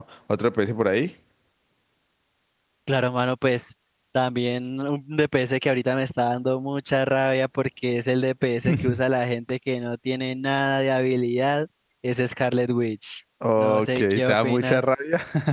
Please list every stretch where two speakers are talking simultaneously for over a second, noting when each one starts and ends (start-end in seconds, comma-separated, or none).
13.6-14.9